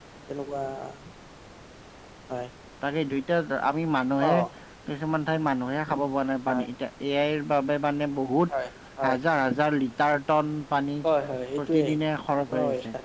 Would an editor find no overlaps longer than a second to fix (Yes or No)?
Yes